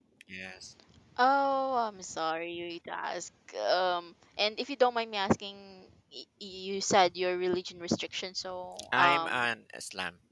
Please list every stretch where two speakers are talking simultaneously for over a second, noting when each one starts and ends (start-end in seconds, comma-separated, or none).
none